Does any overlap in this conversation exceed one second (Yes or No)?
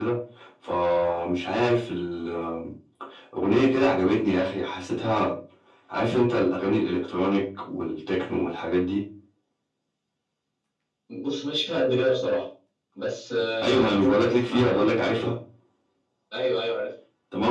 Yes